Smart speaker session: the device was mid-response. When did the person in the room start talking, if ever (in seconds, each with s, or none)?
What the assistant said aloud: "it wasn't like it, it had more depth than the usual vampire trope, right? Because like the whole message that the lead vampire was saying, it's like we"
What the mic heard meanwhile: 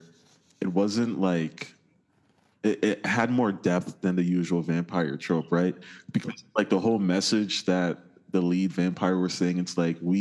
none